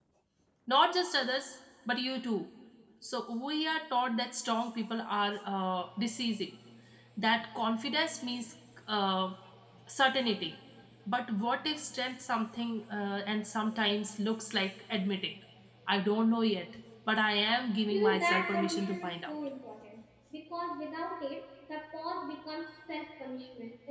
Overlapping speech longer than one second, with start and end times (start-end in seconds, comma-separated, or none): 17.9-19.3